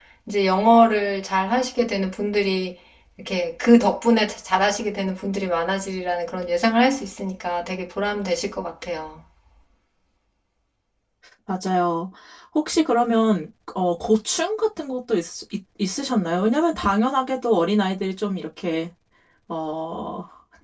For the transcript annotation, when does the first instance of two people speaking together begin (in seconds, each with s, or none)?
none